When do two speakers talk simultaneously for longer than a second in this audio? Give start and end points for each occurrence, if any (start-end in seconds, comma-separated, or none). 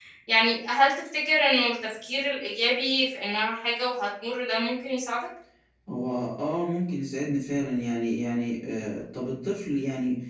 none